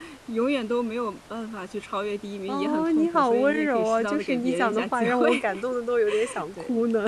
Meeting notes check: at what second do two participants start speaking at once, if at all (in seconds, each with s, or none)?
2.5 s